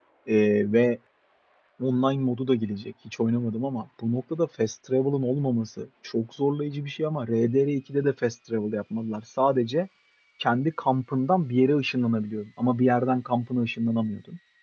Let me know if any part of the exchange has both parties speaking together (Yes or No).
No